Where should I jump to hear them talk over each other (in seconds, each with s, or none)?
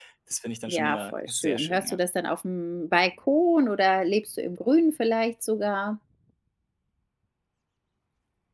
0.7 s